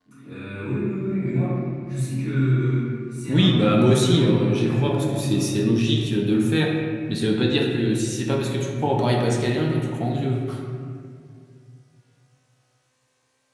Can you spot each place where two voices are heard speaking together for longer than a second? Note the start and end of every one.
3.2-5.5

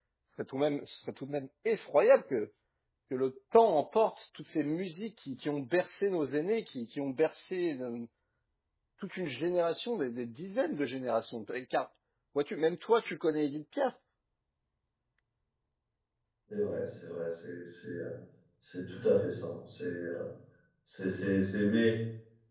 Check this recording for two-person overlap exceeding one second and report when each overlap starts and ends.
none

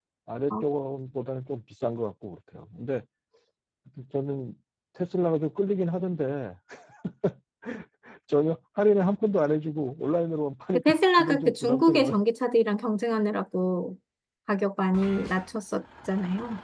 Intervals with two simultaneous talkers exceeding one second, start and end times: 10.7-12.2

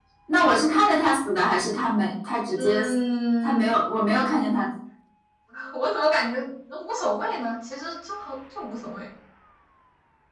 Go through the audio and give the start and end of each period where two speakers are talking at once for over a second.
none

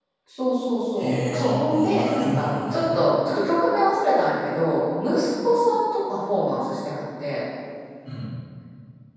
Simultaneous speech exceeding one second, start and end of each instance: 1.0-3.0

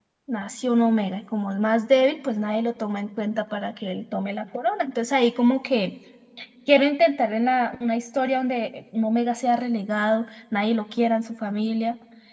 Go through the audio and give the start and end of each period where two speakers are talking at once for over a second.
none

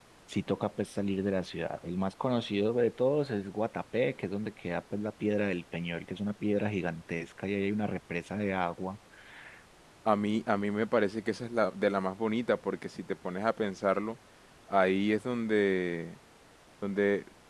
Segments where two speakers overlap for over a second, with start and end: none

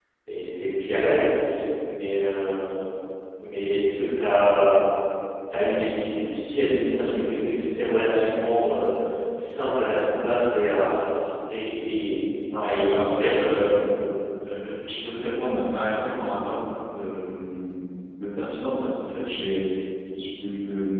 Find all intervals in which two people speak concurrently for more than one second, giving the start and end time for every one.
12.6-13.8

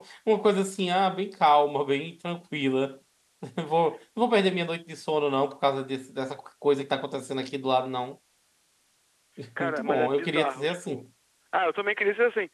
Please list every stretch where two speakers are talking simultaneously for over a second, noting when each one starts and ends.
9.6-11.0

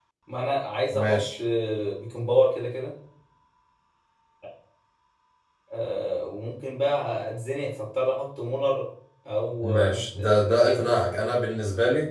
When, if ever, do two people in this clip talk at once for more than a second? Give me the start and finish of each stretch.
9.6-10.9

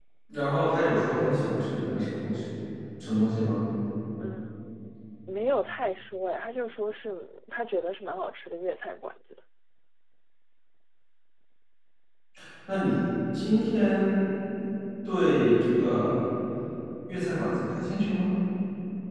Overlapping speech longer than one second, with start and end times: none

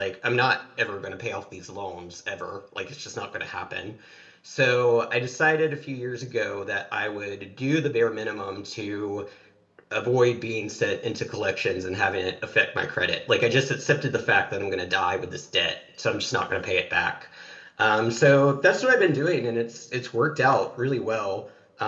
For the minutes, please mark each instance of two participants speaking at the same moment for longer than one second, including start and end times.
none

